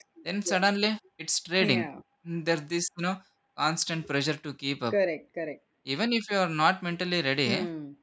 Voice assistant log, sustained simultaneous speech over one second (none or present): none